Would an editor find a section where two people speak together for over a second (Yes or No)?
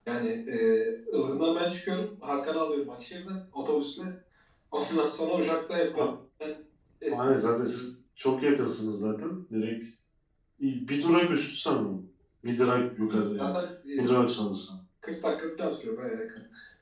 No